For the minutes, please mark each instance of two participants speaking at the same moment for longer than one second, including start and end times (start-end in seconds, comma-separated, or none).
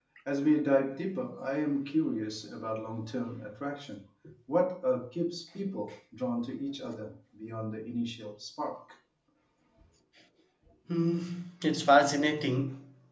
none